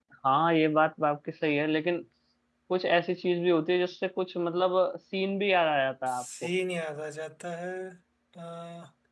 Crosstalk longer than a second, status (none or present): none